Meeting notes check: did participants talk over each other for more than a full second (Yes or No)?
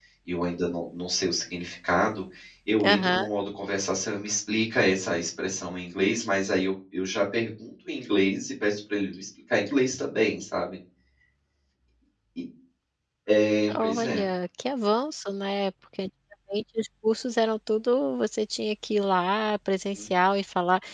No